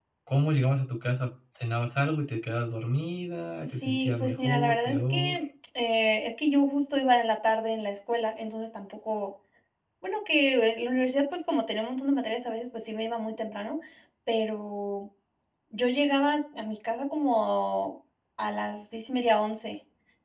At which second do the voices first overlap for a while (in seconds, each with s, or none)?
3.8 s